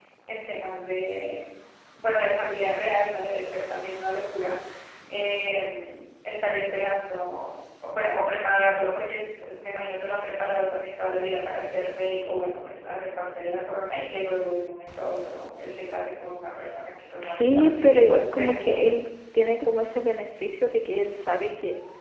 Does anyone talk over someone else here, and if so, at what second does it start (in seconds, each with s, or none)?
17.2 s